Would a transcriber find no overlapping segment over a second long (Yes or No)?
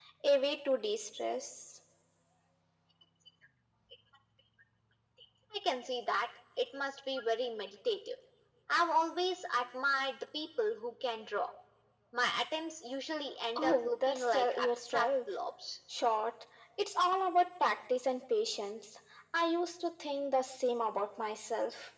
No